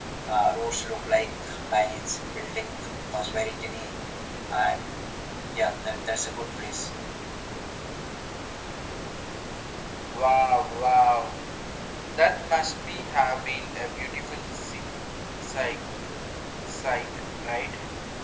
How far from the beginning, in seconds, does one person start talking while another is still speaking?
none

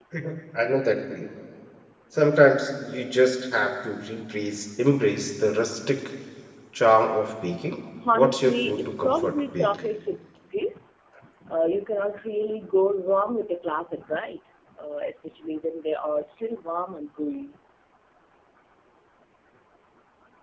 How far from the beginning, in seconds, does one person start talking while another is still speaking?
8.1 s

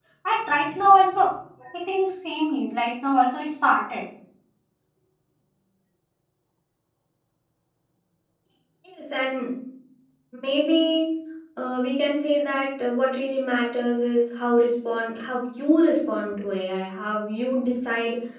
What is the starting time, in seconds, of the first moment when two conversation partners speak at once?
none

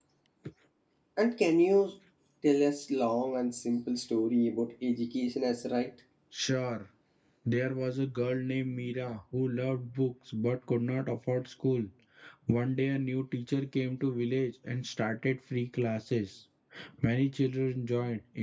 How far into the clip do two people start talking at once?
none

